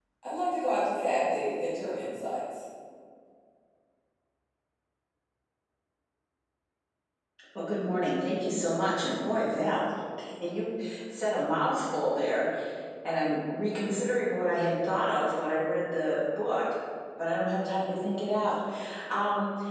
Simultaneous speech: No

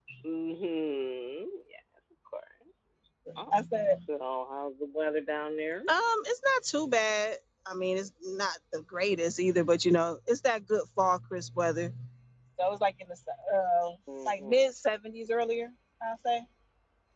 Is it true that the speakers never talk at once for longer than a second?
Yes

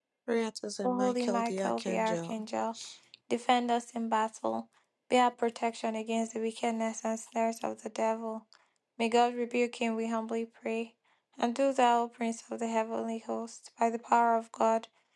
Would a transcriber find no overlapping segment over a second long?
No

